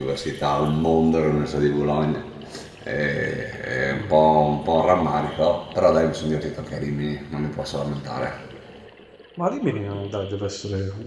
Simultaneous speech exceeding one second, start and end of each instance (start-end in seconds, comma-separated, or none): none